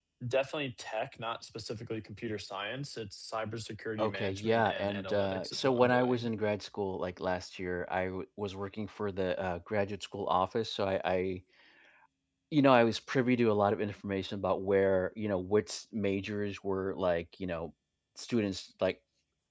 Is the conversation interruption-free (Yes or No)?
No